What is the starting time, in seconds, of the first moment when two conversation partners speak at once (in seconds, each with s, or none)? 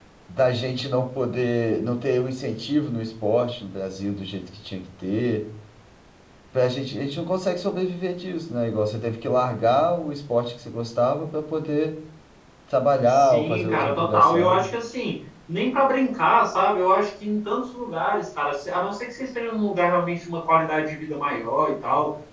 13.1 s